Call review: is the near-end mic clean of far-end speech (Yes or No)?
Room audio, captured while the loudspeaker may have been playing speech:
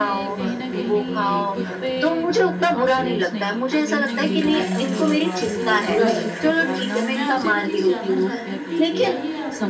No